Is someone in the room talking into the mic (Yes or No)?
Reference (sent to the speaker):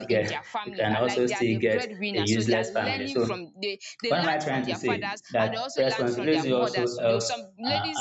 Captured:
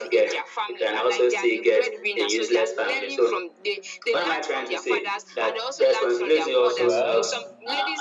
Yes